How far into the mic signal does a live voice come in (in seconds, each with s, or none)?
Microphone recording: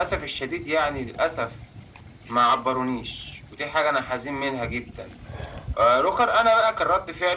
none